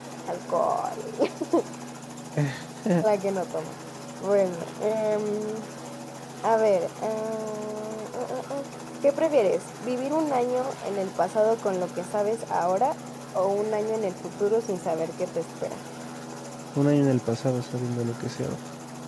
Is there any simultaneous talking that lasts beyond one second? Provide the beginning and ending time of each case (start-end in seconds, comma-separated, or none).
none